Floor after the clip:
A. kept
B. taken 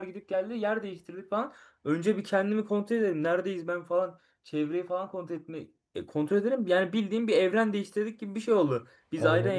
A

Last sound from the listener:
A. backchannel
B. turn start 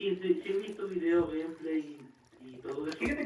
B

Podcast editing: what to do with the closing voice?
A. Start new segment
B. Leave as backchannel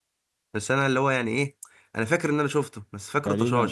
A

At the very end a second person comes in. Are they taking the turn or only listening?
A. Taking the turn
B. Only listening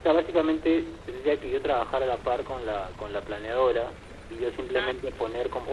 B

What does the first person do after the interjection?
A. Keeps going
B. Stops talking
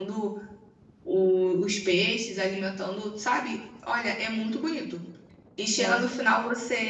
A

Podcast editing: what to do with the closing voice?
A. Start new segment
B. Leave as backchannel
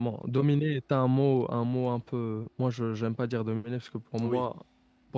B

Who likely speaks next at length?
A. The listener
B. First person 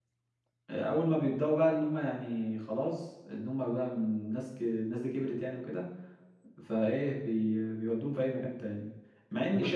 B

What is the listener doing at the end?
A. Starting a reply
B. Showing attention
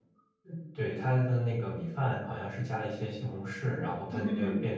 B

